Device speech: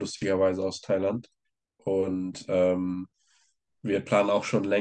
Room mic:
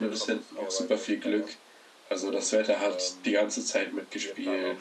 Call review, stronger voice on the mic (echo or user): user